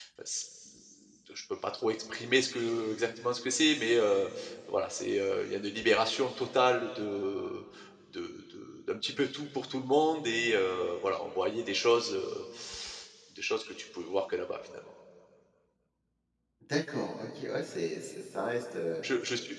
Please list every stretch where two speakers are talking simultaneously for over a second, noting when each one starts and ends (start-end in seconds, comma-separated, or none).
none